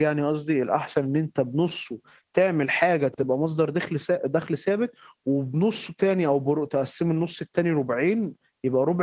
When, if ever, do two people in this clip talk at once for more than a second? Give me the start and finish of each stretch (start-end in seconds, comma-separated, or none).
none